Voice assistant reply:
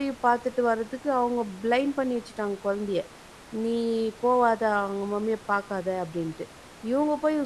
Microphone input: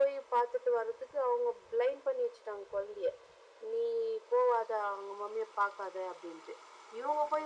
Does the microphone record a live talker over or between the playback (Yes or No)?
No